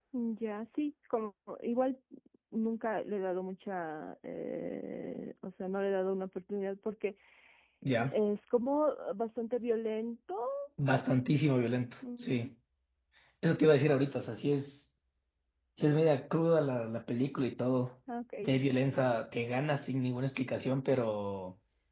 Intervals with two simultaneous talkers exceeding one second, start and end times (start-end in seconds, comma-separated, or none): none